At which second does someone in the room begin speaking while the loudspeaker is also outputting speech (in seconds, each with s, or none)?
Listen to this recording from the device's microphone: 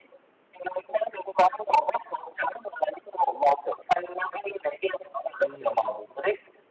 5.4 s